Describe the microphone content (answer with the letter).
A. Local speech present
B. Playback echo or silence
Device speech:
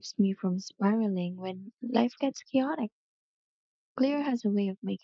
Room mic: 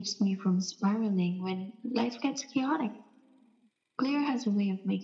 B